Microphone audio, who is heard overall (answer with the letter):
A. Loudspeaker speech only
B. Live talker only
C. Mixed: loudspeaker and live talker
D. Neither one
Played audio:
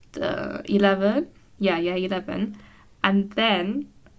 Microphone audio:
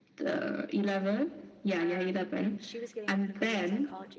C